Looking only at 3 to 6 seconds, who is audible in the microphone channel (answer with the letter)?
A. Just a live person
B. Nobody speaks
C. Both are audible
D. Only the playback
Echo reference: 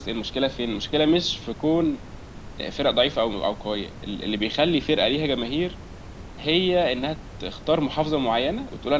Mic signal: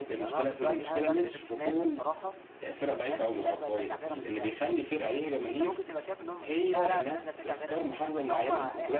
C